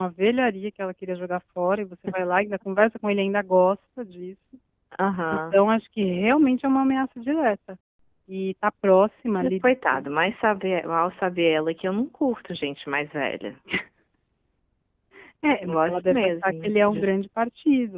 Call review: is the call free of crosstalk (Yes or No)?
No